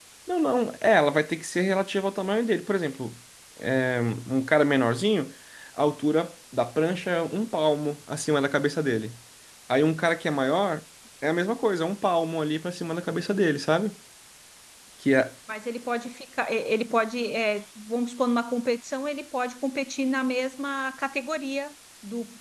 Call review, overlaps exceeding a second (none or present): none